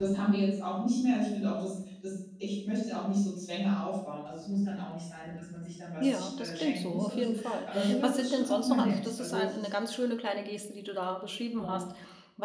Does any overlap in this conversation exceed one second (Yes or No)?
Yes